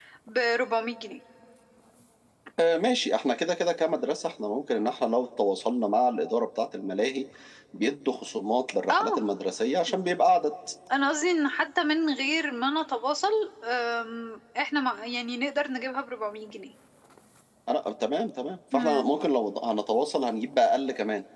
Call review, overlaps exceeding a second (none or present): none